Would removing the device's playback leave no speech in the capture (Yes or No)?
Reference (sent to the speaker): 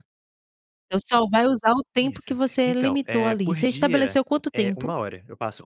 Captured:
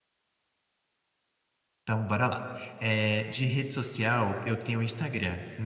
No